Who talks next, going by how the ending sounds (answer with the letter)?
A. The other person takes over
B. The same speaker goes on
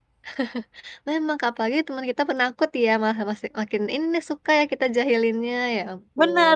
A